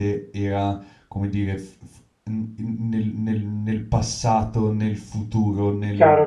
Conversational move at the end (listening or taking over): taking over